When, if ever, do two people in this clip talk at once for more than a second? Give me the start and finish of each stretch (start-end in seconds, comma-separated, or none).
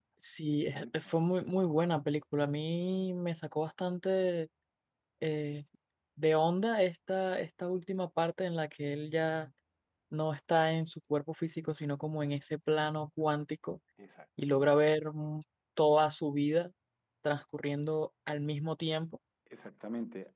none